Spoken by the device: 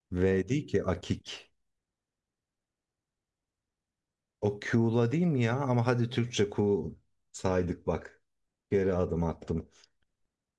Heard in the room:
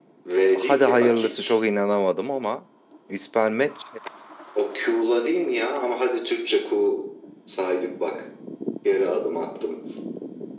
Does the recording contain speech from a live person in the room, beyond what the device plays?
Yes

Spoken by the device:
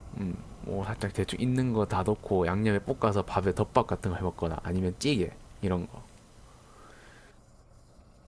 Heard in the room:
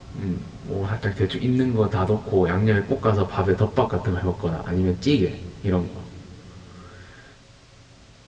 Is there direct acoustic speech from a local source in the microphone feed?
No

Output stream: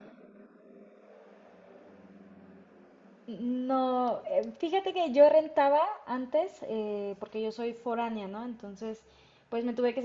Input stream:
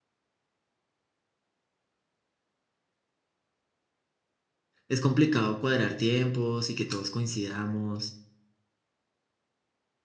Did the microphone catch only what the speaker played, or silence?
No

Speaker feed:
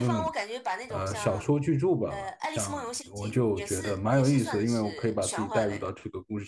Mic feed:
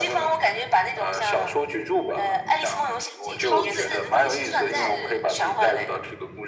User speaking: Yes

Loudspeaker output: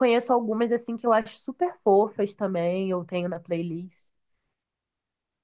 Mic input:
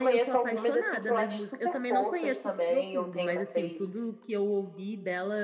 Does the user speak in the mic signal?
Yes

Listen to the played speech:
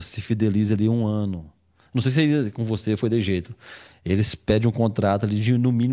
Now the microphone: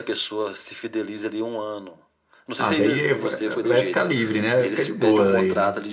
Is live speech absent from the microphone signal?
No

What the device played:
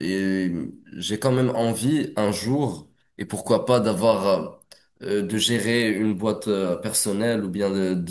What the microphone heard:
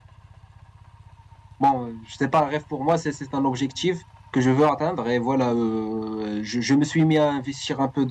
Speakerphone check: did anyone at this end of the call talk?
Yes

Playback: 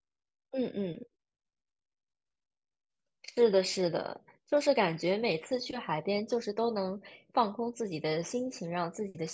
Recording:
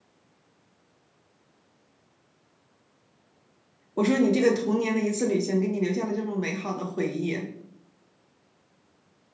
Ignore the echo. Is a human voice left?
Yes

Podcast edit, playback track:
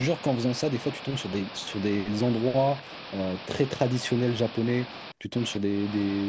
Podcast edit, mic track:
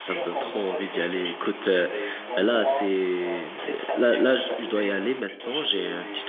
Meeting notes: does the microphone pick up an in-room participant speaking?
Yes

